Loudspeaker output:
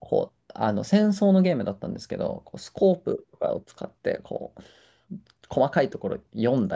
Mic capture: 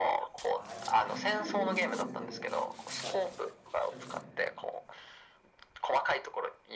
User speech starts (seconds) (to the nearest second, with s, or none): 1 s